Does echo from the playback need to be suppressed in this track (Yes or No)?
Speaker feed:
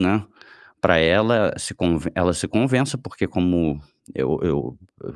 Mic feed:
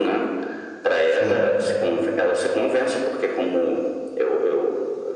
Yes